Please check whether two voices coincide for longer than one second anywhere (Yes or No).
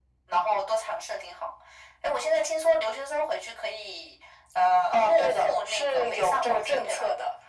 Yes